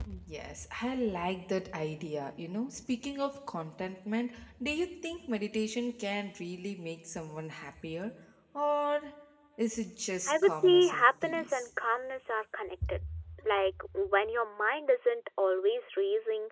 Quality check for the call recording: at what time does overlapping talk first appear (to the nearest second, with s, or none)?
10 s